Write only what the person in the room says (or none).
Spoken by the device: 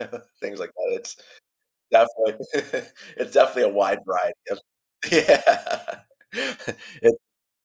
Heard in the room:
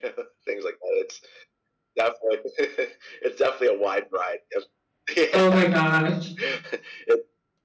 Oh my gosh.